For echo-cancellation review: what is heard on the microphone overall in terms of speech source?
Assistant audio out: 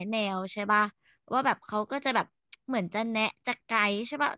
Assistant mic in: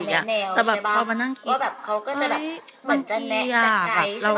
both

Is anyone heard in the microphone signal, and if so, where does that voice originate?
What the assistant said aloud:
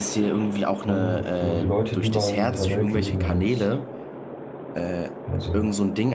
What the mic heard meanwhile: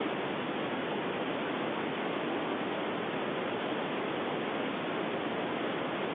neither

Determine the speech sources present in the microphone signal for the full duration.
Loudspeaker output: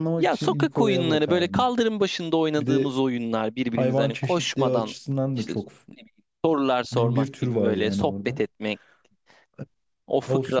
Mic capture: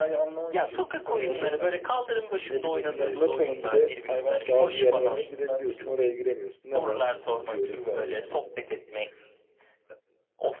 both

